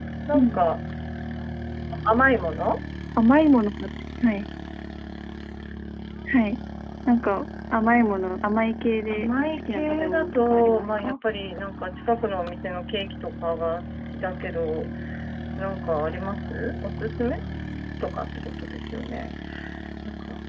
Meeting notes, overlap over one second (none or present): present